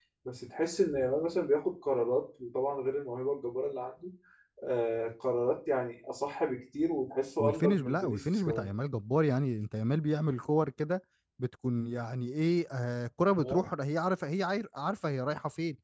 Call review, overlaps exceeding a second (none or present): present